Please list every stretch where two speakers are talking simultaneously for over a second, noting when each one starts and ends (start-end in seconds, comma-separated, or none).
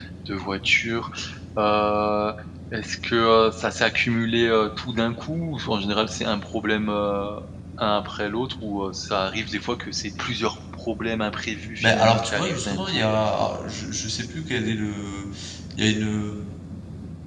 11.8-13.1